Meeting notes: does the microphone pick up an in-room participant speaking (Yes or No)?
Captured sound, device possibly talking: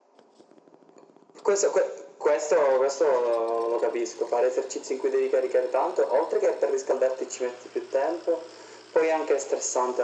No